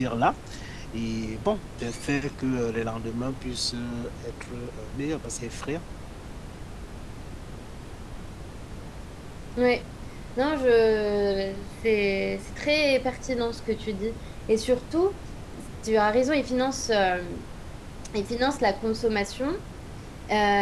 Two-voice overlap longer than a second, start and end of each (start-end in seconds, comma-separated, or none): none